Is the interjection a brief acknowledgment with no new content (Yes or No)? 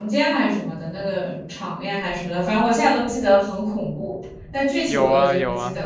No